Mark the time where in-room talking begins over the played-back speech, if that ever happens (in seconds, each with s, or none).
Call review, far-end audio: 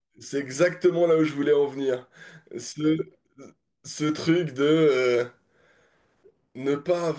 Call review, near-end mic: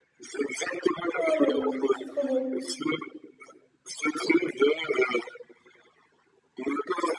1.1 s